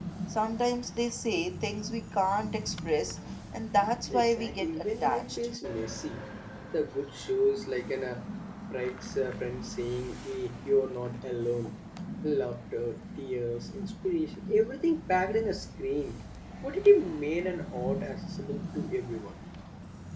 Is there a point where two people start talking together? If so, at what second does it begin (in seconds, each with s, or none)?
4.0 s